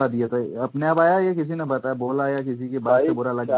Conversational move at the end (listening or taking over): taking over